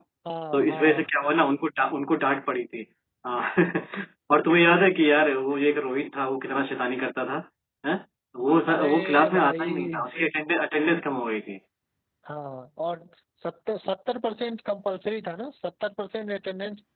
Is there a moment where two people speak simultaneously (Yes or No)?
Yes